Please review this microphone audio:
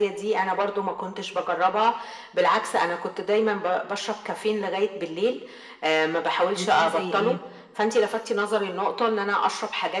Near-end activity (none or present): present